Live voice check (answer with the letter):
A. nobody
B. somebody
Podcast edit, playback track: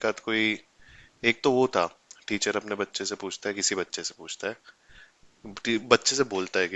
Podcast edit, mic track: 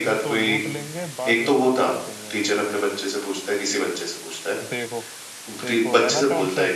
B